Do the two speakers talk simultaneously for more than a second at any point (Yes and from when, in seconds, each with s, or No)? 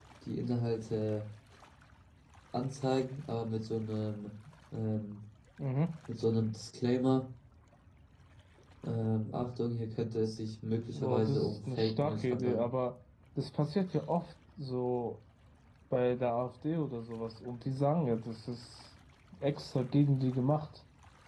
Yes, from 10.9 s